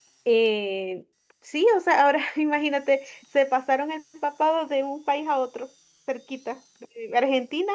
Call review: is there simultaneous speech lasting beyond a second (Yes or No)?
No